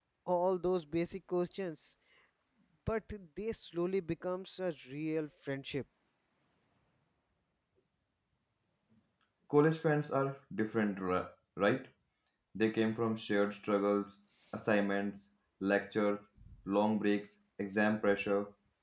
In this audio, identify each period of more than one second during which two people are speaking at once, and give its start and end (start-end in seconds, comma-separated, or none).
none